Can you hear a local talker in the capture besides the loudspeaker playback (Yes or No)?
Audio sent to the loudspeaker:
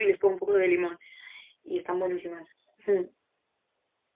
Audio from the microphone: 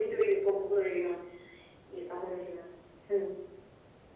No